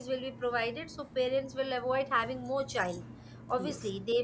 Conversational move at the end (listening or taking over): listening